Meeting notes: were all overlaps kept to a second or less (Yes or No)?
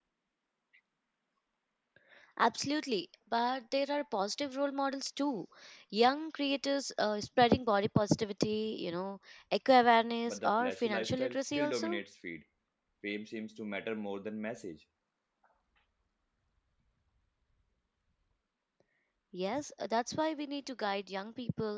No